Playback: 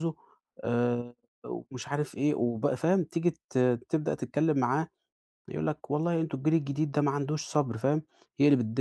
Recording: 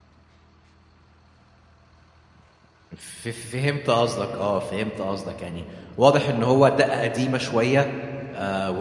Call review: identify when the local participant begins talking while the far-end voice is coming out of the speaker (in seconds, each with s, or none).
3.0 s